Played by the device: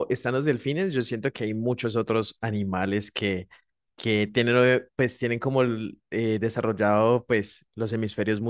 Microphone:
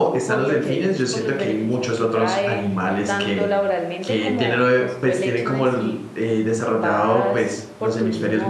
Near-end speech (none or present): present